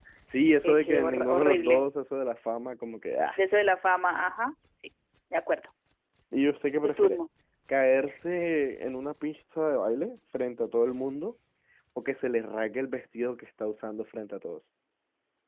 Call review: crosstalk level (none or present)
present